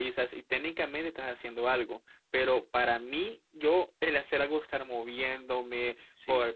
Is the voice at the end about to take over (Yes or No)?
No